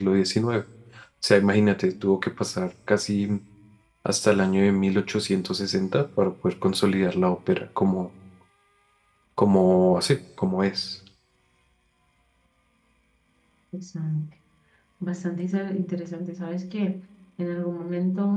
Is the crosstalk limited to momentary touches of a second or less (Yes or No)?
Yes